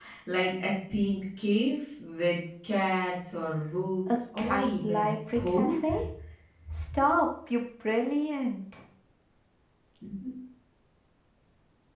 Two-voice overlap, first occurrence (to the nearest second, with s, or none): 4 s